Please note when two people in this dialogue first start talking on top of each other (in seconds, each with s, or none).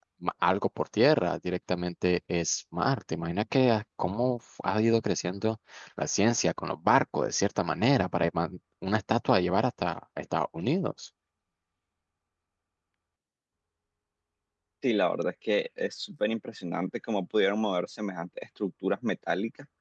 none